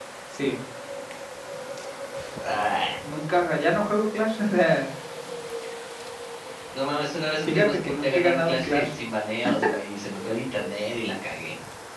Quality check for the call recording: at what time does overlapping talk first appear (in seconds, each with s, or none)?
7.5 s